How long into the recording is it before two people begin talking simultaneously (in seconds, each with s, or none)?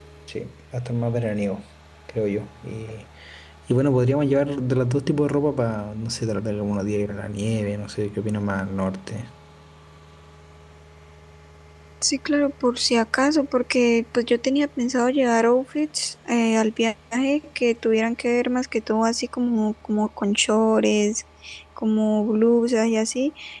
none